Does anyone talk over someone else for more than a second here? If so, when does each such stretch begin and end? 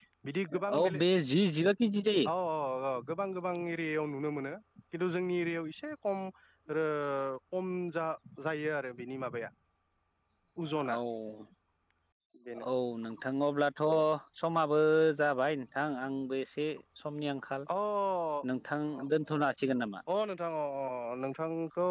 none

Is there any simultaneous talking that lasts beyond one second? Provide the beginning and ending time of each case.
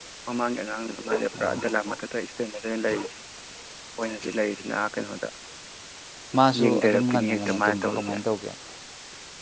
6.6-8.1

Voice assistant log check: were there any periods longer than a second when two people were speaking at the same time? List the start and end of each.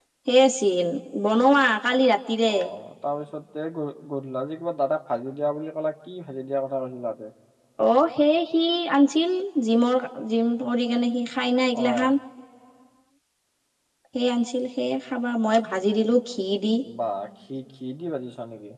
none

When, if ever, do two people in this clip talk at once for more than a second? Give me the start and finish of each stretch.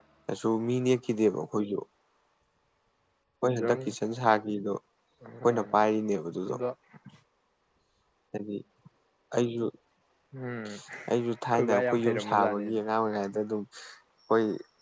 11.5-12.8

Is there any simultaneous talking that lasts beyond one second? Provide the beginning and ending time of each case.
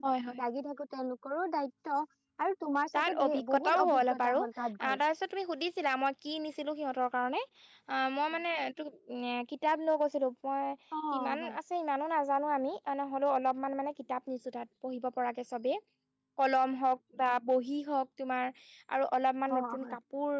3.0-4.4

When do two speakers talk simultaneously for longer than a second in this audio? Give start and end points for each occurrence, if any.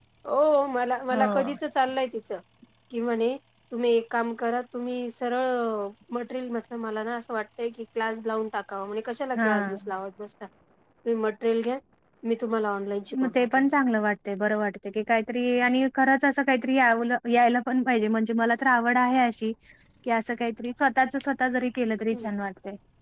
none

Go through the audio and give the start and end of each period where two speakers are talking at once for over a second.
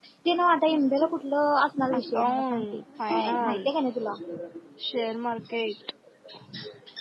1.9-3.8

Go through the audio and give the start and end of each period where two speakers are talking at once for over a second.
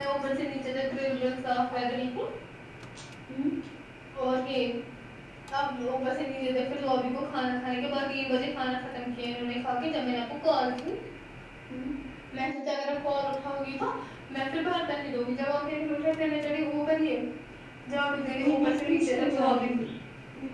18.4-19.7

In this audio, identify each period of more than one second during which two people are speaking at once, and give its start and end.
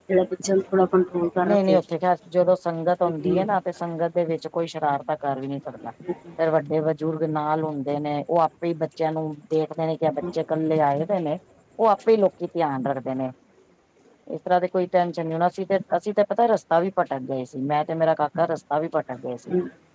none

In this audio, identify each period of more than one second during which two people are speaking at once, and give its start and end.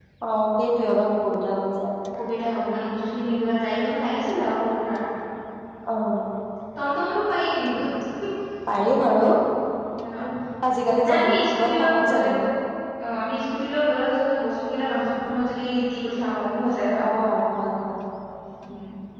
11.1-12.3

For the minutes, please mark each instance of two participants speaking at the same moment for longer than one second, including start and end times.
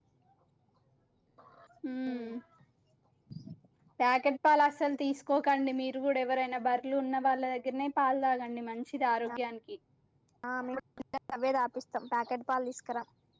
none

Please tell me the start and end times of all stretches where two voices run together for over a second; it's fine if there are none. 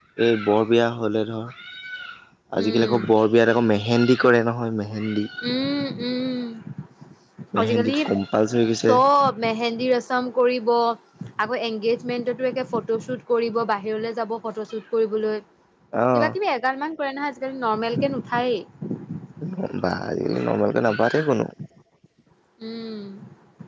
none

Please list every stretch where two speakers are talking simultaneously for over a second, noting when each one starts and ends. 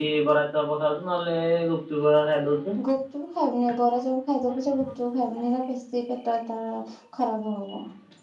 none

